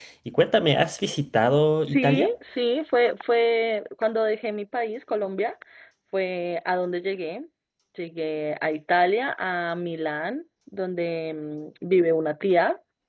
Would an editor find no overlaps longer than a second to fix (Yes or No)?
Yes